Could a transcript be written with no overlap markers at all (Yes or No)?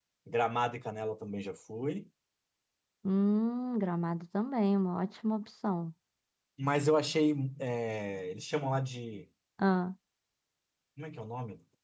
Yes